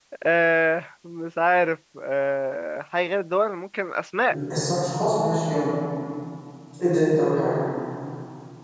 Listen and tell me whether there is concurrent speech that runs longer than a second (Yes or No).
No